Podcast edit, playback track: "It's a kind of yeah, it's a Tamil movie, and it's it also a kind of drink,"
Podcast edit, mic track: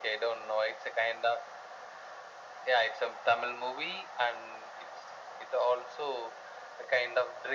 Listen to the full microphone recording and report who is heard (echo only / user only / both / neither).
echo only